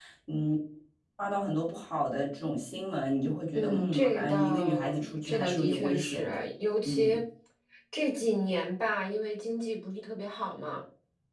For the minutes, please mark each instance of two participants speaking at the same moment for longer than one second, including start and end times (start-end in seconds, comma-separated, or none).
3.5-6.4